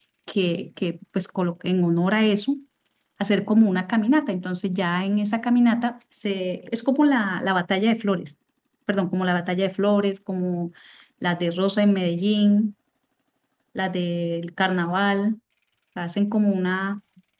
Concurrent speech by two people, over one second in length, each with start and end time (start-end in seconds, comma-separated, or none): none